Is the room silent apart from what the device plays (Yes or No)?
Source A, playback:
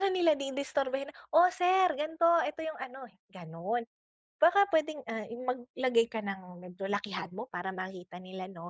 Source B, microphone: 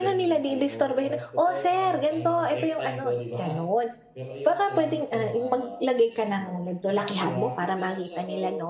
No